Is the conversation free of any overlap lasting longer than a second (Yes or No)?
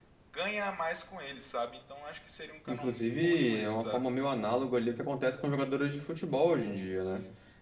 No